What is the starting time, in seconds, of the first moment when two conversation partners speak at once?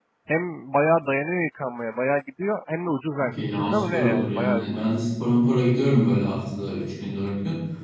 3 s

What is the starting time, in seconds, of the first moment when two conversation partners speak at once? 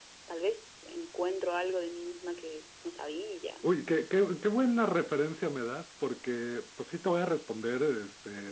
none

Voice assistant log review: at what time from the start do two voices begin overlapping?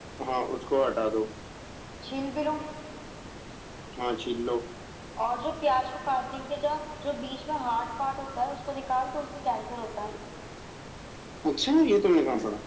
none

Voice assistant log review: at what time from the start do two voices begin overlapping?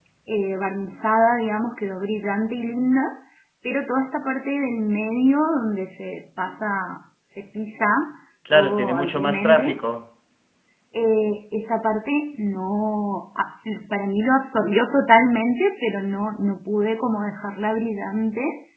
8 s

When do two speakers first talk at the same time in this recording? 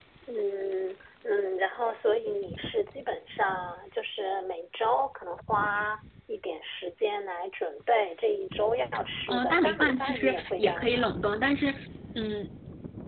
9 s

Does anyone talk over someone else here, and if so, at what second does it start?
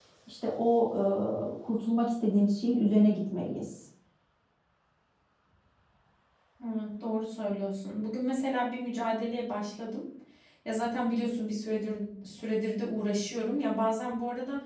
none

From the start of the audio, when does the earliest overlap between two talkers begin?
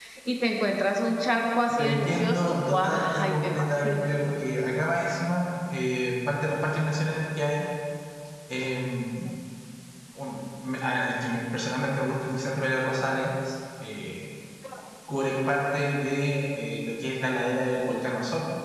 2 s

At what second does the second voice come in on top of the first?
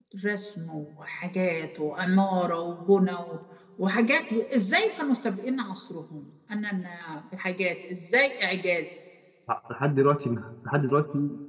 none

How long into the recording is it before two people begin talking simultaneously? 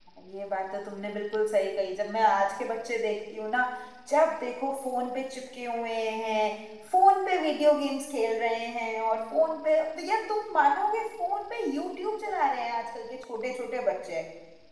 none

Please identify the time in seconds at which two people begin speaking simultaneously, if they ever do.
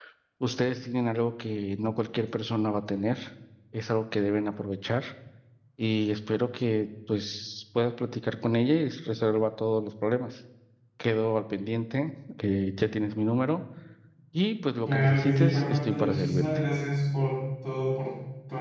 15 s

